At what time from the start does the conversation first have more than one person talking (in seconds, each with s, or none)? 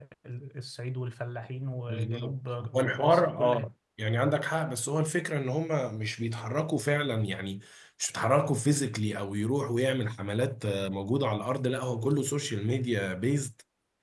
1.9 s